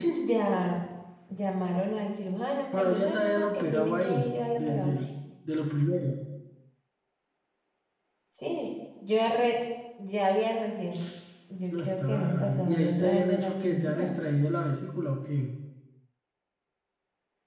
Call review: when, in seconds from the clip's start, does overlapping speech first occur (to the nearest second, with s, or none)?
3 s